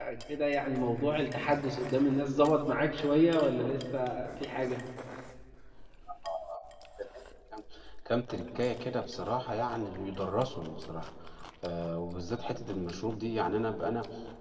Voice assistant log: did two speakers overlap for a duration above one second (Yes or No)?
No